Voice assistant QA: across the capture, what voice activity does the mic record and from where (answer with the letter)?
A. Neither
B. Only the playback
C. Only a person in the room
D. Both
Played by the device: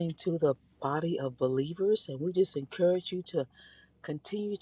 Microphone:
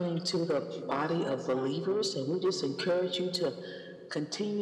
D